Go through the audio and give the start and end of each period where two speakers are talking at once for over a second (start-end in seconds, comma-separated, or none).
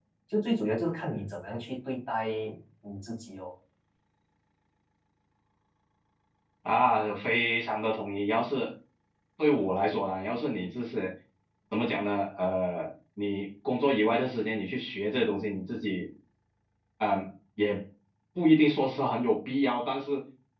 none